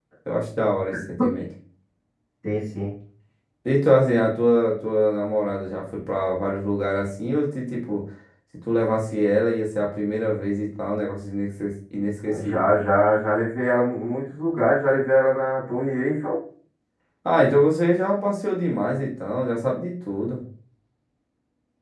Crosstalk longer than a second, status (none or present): none